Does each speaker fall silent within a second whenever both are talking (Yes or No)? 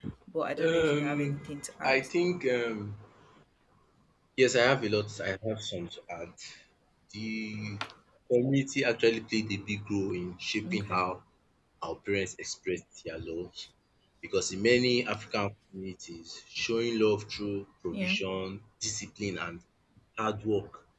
No